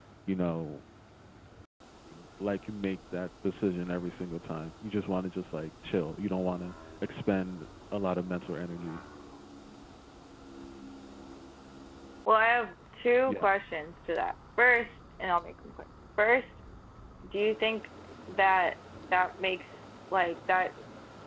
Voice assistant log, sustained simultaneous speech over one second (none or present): none